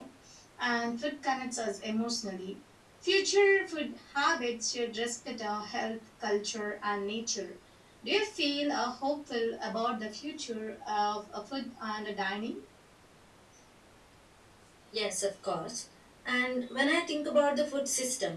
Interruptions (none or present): none